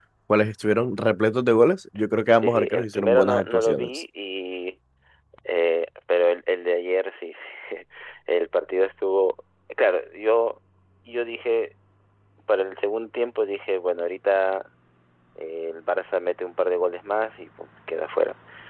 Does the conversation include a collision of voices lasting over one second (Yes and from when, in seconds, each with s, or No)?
Yes, from 2.4 s